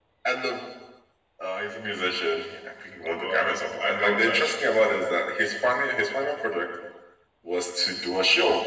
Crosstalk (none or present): present